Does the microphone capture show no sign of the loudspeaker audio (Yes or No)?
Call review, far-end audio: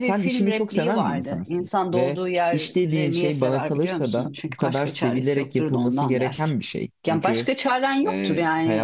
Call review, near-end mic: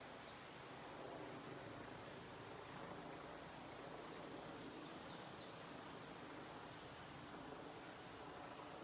Yes